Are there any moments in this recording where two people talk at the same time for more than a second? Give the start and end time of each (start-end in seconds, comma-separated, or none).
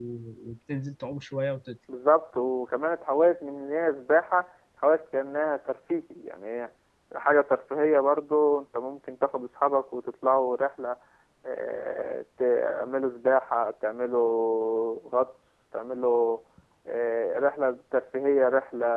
none